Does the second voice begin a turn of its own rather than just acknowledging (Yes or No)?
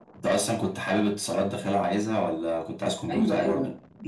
Yes